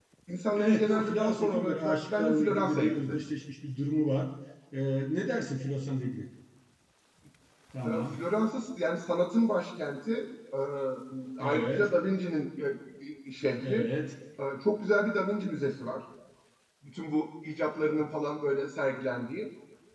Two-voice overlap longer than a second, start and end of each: 0.6-3.2

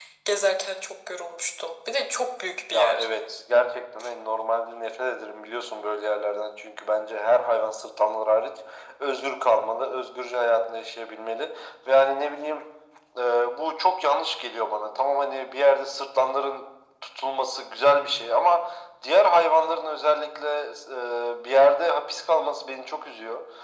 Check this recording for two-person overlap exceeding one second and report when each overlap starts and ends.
none

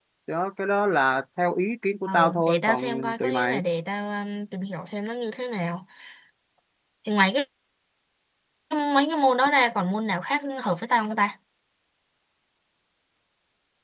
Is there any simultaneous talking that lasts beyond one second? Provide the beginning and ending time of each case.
2.1-3.6

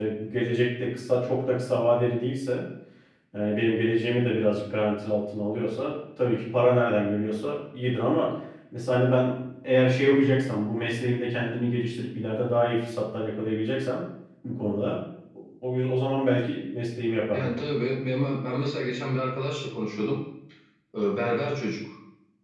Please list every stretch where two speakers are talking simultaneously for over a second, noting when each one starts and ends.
none

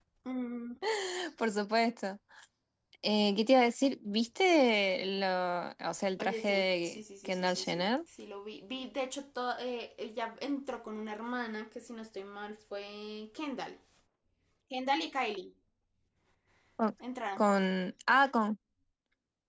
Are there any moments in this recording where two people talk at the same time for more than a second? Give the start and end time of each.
6.2-7.9

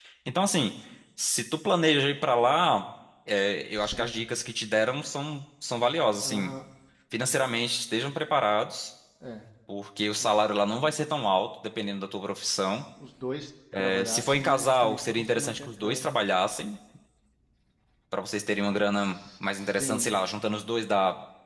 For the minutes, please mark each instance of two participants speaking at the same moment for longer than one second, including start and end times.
13.8-16.0

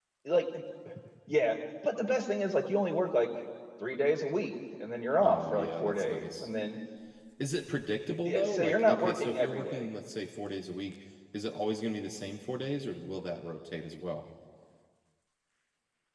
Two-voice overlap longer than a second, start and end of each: 5.2-6.5, 8.2-9.9

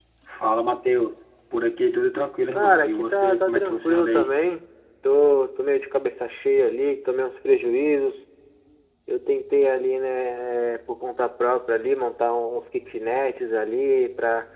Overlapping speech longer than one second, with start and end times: 2.5-4.3

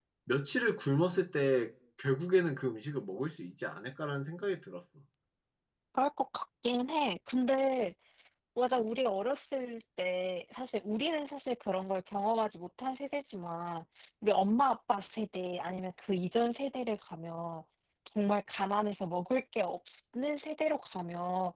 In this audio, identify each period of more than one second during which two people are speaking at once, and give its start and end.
none

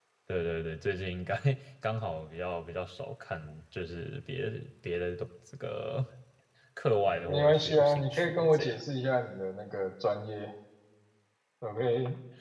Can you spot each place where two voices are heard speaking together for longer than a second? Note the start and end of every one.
7.2-8.7

